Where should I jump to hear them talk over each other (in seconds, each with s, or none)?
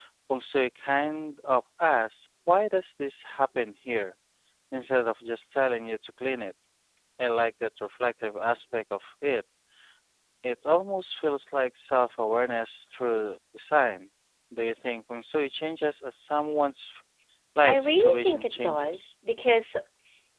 17.6 s